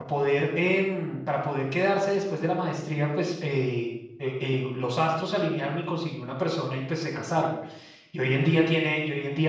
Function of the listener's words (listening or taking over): listening